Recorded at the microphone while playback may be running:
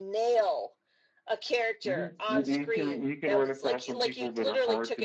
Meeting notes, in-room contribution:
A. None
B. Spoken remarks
B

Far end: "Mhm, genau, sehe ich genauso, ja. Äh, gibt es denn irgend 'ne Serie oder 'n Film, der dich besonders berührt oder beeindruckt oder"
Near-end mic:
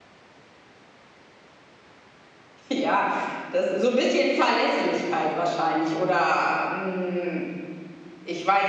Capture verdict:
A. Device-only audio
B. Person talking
B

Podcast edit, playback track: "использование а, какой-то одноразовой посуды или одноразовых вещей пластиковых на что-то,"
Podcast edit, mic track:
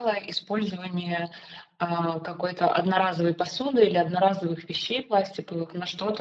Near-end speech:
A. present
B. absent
B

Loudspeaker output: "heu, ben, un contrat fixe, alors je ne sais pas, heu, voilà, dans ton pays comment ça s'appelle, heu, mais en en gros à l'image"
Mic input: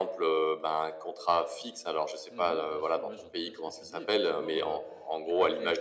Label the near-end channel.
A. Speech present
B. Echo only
A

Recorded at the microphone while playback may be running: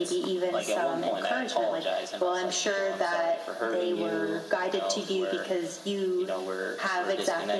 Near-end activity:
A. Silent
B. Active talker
A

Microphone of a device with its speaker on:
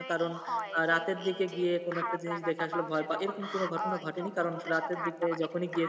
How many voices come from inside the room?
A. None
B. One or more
B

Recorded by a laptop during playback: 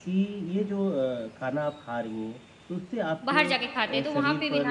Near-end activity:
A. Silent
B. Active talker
B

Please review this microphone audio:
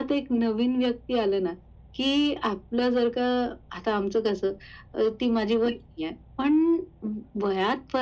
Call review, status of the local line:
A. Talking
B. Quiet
B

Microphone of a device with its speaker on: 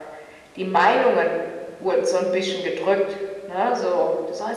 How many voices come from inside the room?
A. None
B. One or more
B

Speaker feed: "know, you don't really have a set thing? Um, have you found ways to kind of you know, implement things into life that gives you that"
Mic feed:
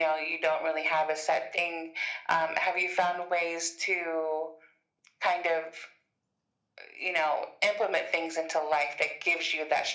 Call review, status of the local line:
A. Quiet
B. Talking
A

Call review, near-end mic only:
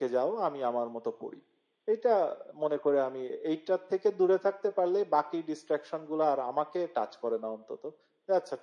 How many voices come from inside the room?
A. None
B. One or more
B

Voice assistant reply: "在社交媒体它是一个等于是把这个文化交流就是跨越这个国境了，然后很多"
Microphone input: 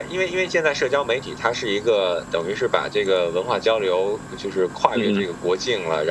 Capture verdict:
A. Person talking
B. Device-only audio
A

